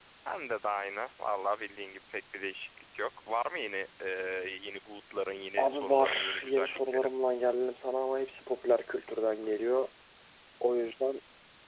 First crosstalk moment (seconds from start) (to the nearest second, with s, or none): 6 s